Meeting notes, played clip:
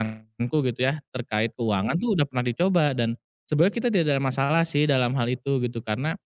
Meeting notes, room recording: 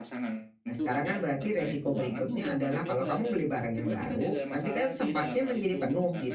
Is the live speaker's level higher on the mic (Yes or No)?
Yes